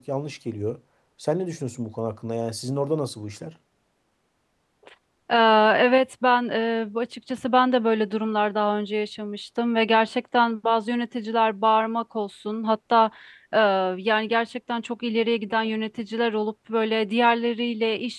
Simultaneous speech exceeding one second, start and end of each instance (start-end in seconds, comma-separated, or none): none